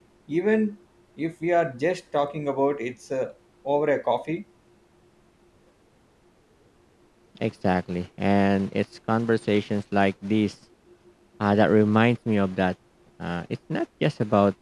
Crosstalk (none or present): none